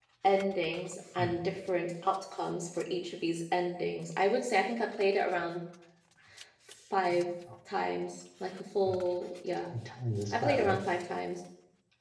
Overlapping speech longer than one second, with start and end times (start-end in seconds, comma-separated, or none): none